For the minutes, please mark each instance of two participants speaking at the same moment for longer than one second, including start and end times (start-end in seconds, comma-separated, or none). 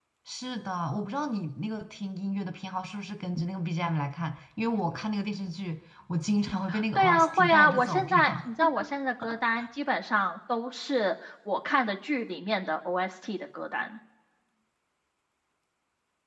7.0-8.2